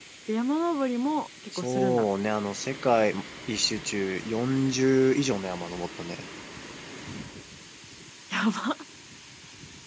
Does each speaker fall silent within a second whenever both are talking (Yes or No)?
Yes